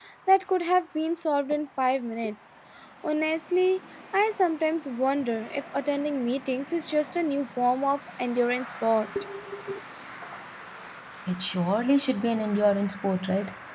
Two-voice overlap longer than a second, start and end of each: none

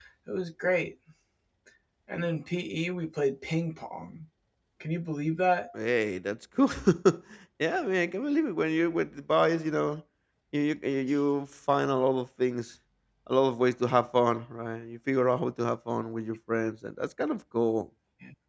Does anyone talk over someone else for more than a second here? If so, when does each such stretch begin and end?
none

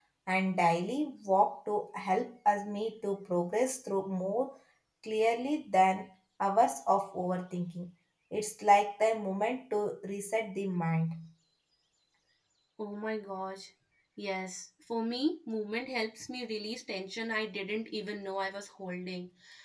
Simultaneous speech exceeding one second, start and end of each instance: none

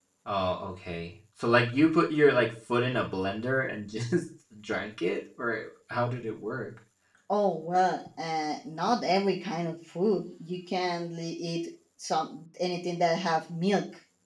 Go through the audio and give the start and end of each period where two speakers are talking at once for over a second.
none

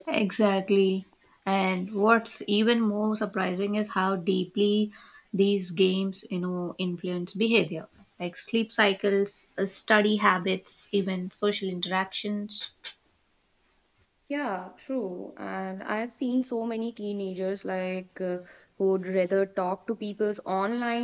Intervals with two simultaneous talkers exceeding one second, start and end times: none

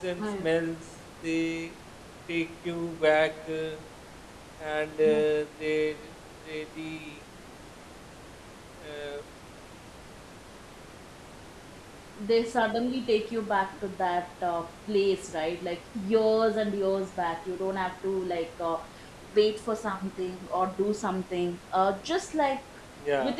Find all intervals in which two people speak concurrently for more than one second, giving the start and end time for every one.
none

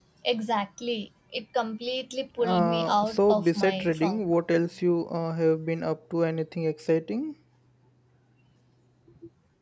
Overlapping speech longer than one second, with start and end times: 2.4-4.3

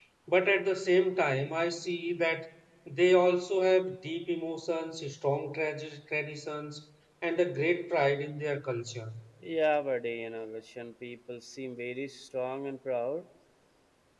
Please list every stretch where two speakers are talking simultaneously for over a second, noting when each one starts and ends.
none

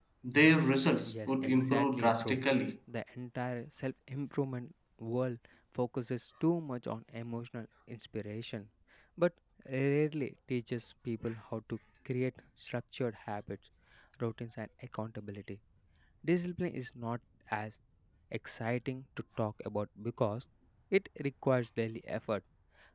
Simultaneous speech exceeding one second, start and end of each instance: 1.0-2.4

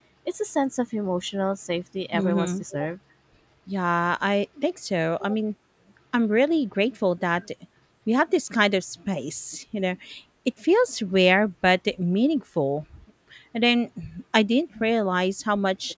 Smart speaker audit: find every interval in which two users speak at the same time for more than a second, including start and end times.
none

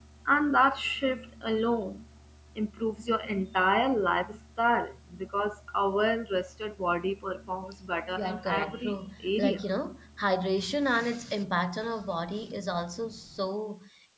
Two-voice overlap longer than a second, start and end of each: 8.2-9.6

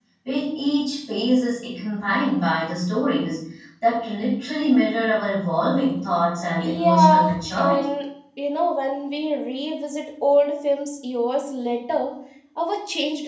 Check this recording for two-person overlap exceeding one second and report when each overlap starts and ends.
6.6-7.9

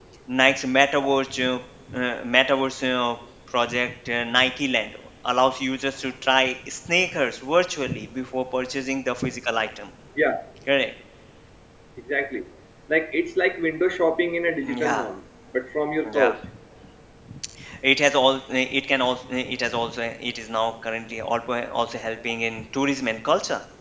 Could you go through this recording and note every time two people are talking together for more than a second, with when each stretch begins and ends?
none

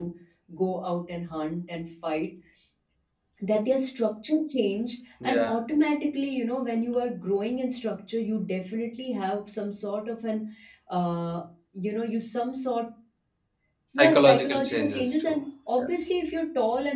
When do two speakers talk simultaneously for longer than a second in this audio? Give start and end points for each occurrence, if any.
14.0-15.4

